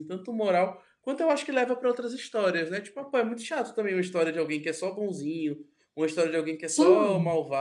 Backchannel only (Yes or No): Yes